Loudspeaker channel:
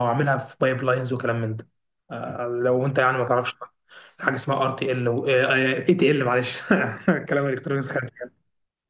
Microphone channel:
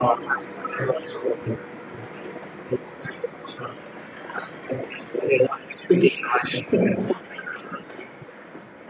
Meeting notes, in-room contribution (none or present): none